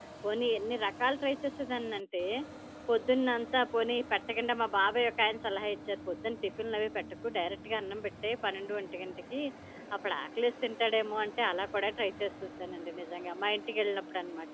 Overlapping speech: No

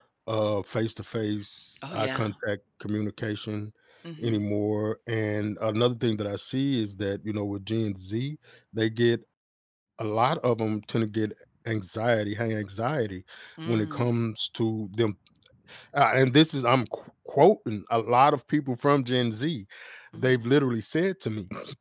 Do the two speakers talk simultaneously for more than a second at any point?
No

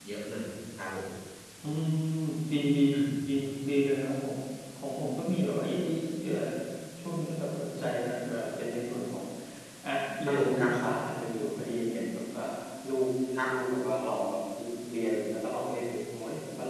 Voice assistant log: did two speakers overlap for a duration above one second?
No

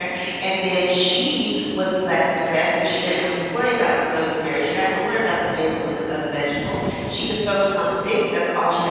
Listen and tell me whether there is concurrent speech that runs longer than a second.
No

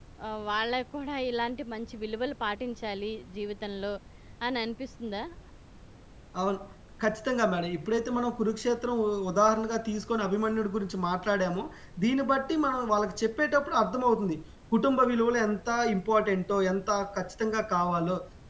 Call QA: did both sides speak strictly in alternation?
Yes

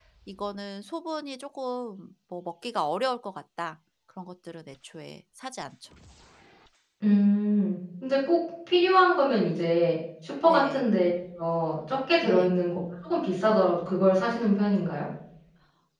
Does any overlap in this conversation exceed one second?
No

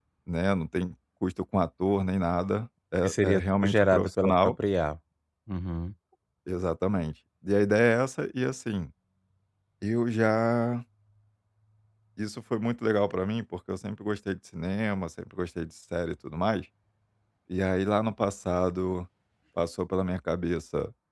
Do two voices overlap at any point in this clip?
Yes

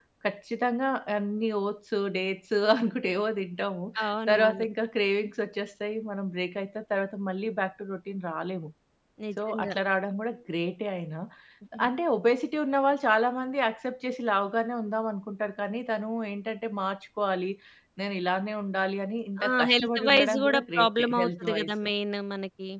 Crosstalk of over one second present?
Yes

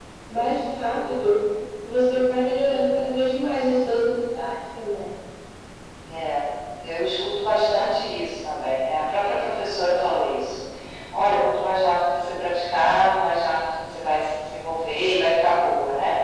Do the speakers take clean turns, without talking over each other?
Yes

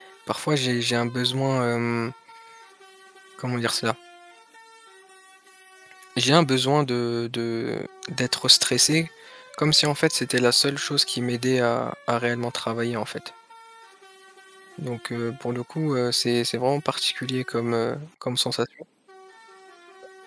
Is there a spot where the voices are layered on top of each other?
No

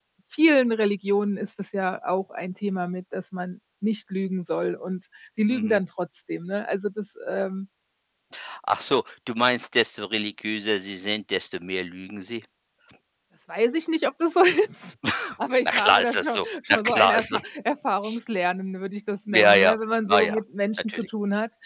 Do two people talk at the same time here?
Yes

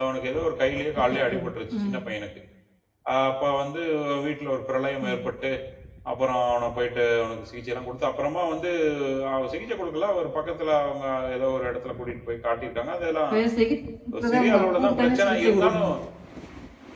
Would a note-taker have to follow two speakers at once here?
Yes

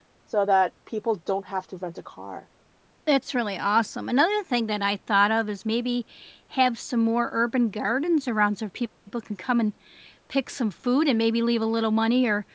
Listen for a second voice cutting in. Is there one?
No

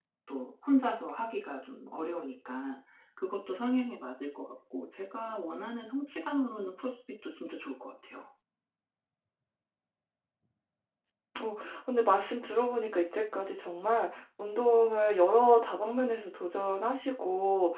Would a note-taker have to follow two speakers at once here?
No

